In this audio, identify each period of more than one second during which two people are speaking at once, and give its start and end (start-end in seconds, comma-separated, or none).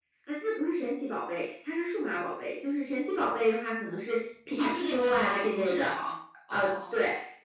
4.6-5.9